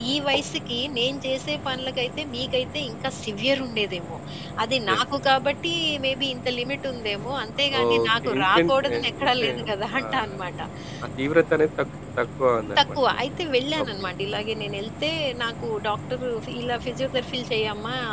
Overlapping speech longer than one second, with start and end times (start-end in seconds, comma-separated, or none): 7.8-9.5